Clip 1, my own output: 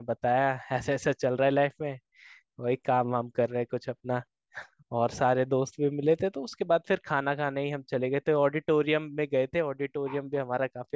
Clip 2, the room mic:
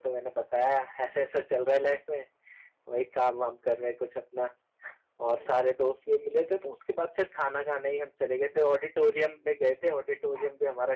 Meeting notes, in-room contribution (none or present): none